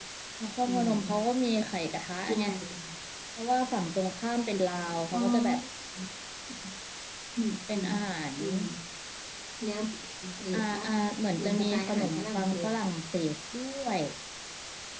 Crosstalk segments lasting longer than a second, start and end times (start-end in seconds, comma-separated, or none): 11.4-12.7